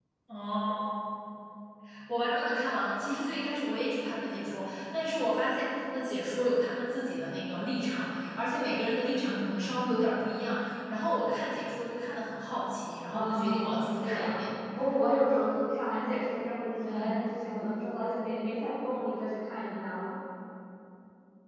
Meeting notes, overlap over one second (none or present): present